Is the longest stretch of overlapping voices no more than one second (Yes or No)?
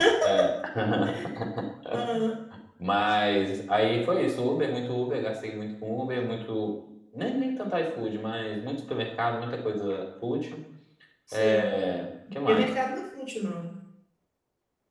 Yes